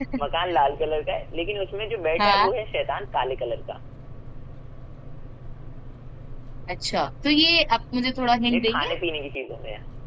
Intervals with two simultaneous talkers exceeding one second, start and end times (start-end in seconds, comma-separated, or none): none